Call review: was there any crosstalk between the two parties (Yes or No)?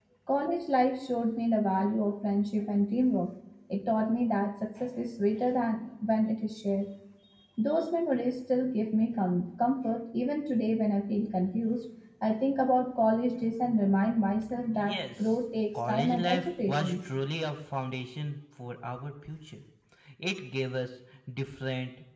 Yes